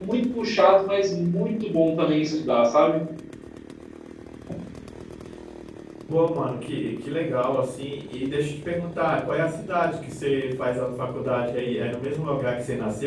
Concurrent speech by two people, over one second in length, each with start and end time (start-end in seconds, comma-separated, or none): none